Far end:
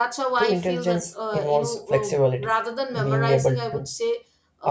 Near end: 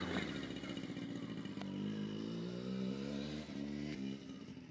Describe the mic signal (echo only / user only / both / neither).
neither